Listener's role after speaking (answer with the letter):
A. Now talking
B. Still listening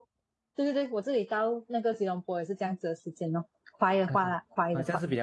A